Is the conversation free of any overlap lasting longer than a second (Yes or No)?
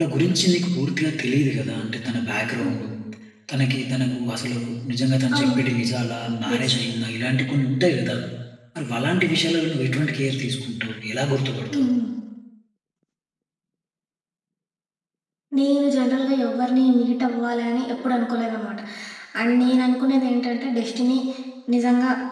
Yes